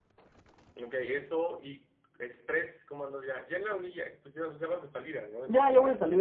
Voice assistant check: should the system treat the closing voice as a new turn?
Yes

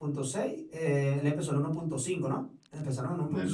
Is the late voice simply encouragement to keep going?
No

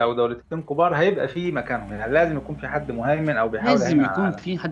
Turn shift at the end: Yes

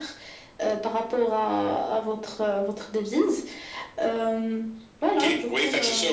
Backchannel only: No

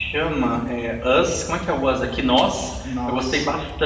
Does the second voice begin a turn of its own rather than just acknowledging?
No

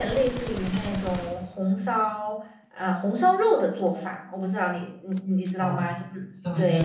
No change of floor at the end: No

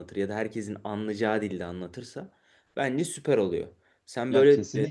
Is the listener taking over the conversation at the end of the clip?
Yes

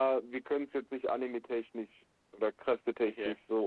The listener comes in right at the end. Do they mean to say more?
No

